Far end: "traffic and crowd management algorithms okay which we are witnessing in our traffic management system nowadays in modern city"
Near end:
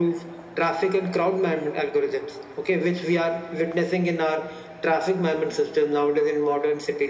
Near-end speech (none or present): none